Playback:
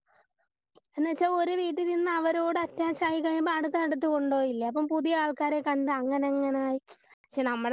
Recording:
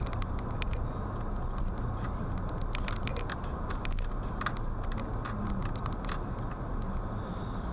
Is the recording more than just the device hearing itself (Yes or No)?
No